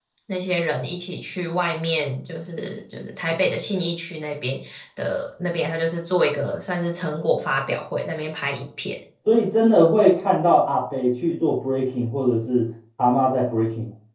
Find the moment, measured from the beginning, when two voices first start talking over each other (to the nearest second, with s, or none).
none